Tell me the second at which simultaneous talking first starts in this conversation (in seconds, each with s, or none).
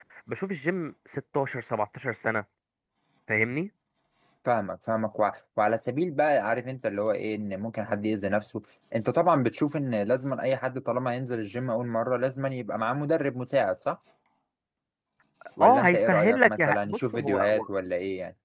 15.6 s